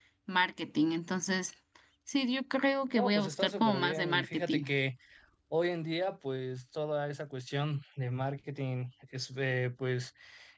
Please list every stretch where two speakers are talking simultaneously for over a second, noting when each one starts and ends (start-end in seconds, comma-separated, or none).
3.0-4.6